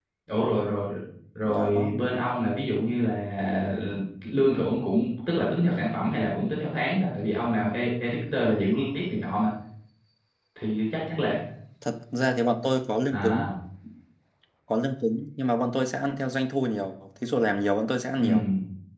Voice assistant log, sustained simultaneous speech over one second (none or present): none